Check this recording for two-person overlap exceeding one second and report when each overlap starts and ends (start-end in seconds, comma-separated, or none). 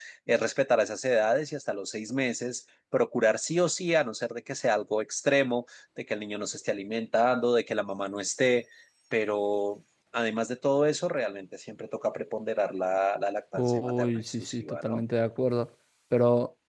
13.5-15.0